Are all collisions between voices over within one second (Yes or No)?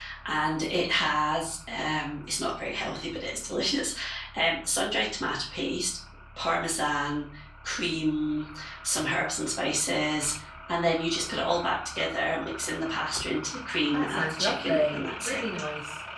No